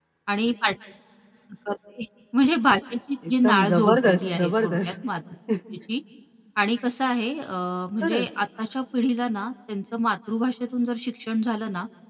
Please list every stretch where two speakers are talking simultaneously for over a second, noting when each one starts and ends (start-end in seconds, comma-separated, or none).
3.3-4.9